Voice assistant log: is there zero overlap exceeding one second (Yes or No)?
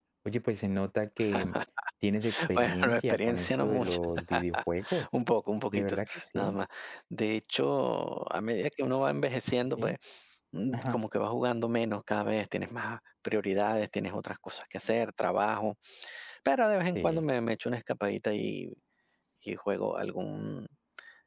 No